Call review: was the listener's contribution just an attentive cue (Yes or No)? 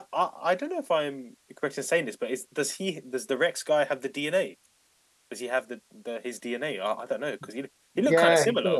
No